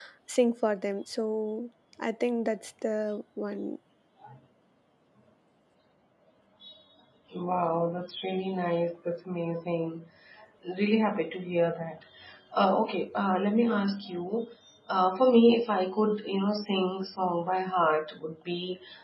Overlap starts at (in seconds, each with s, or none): none